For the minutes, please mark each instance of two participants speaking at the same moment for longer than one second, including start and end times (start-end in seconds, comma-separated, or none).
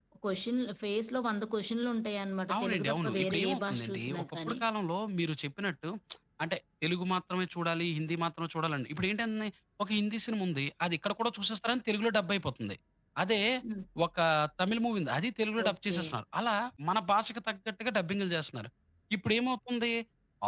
2.5-4.6